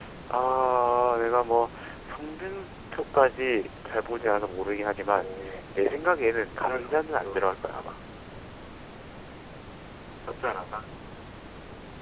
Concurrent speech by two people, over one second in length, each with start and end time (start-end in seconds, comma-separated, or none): 6.5-7.8